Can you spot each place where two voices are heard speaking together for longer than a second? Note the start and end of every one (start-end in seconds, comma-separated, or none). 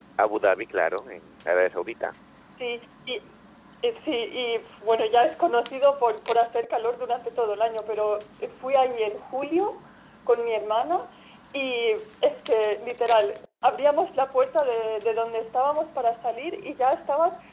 none